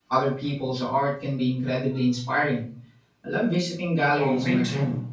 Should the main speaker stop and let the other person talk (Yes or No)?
Yes